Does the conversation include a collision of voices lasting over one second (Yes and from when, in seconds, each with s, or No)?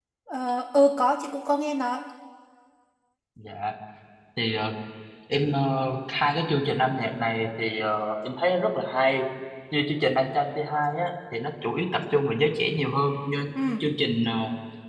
No